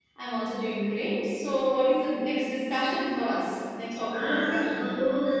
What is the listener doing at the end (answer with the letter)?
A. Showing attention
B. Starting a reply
B